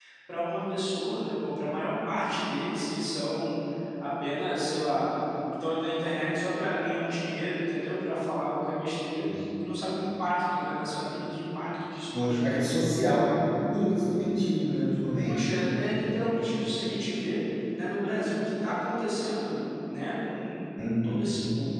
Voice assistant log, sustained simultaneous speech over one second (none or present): none